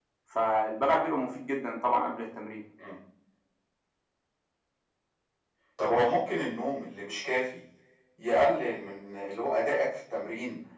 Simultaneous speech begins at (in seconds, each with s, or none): none